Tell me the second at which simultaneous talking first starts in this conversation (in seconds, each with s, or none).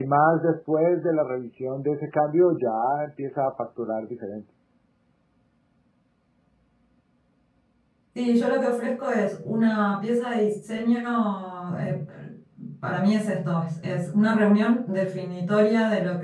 none